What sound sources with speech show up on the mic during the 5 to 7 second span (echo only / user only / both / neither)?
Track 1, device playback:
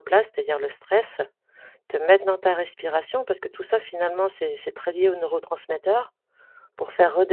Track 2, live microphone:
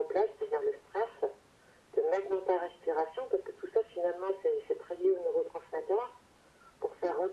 echo only